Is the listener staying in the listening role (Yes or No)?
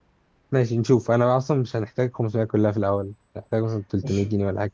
No